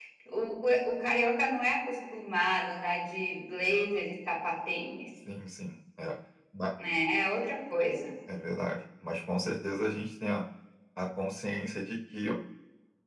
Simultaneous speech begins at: none

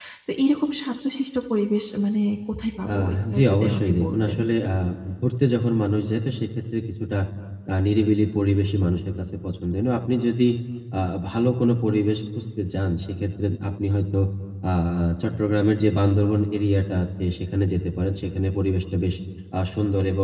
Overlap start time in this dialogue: 2.9 s

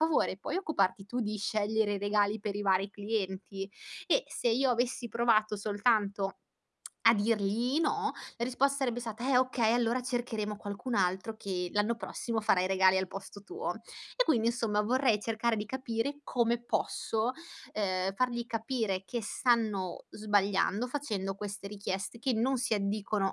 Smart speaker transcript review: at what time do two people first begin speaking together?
none

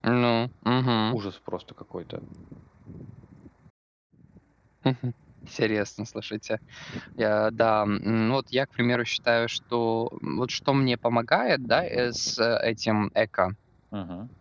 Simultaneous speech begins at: none

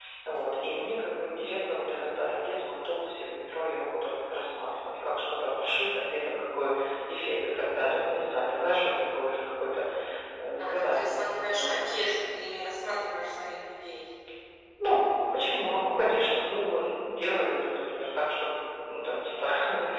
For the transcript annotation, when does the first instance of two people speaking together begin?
10.6 s

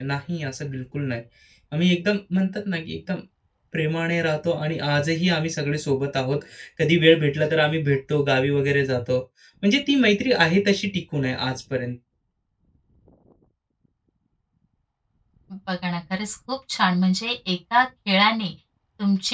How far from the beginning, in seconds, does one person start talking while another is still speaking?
none

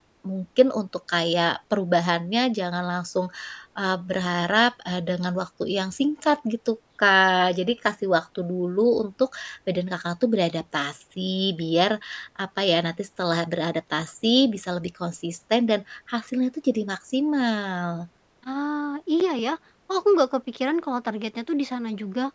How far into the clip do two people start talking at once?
none

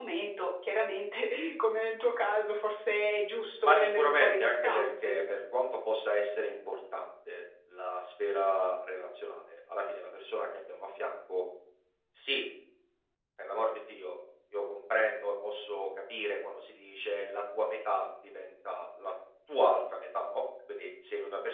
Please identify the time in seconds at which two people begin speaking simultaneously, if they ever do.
3.6 s

